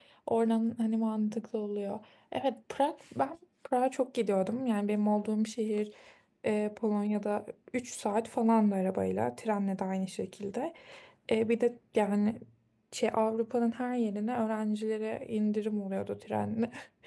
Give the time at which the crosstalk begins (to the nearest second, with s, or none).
none